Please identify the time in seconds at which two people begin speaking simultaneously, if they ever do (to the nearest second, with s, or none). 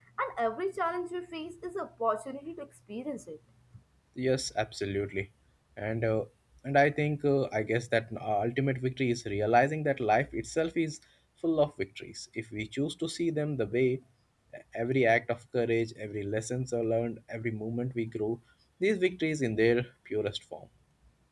none